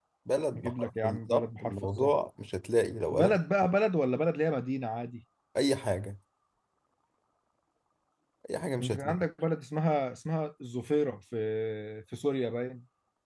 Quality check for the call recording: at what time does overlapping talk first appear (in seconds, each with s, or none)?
0.5 s